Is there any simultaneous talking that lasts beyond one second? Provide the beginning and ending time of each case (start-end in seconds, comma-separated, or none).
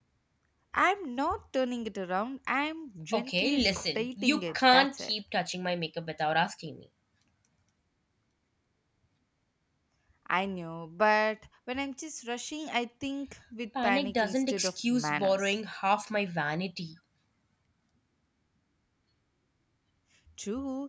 3.1-5.1, 13.8-15.6